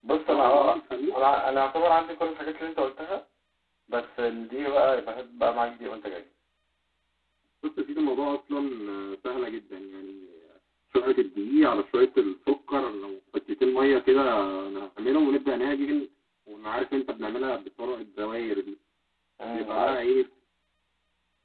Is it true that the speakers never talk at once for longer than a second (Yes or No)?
Yes